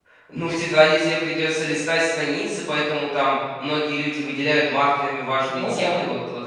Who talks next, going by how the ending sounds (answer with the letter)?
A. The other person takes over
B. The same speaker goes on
B